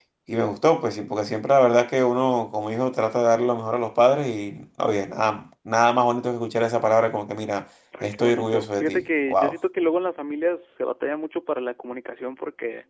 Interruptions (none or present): present